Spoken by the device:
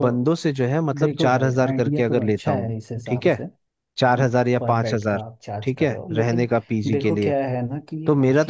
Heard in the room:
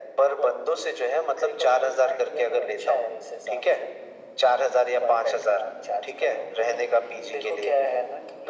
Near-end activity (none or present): none